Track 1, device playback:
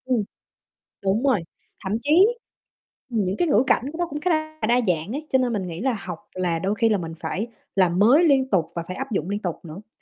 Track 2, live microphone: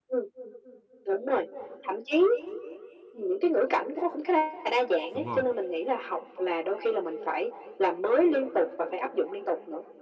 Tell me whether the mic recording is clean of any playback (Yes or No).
No